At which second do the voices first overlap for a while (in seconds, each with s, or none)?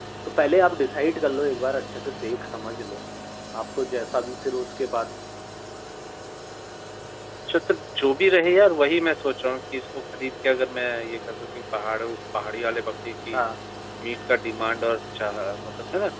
none